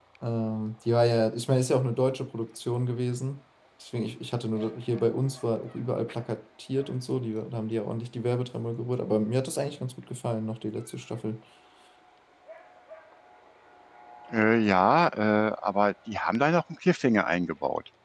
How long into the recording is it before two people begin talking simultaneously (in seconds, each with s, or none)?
none